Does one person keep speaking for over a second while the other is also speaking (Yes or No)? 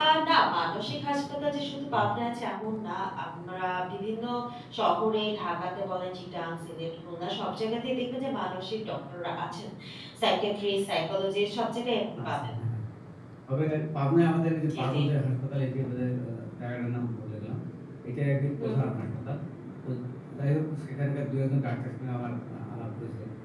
No